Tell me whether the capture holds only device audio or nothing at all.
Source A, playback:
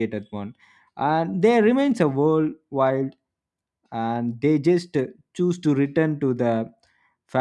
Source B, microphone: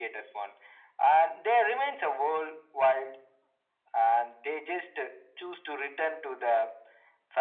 Yes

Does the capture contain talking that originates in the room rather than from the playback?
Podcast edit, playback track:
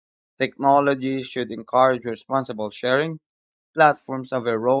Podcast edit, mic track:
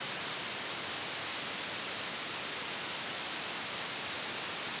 No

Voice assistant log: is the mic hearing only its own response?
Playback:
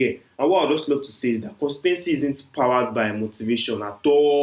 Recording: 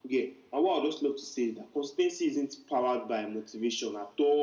Yes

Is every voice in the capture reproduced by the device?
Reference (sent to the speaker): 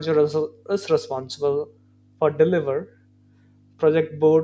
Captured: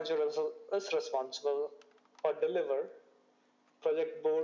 Yes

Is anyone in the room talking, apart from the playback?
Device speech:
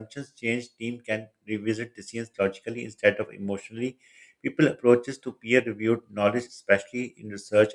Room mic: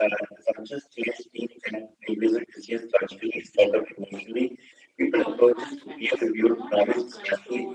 Yes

